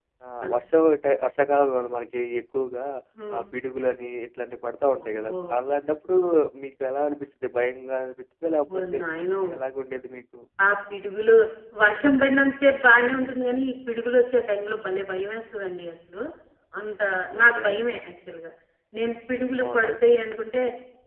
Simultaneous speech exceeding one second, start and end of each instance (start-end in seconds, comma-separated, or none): none